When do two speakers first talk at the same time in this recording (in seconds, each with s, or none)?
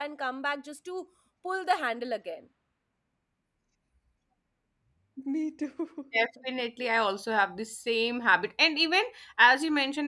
none